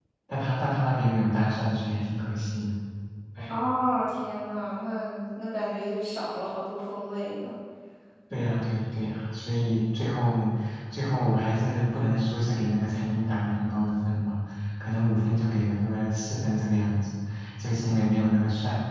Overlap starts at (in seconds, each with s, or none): none